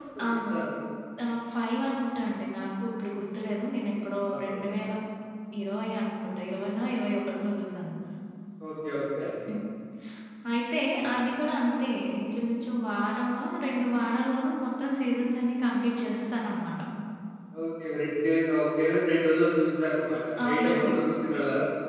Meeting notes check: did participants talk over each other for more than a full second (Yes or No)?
No